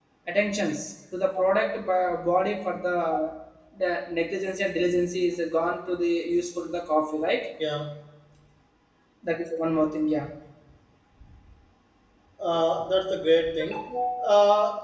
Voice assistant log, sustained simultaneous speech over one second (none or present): none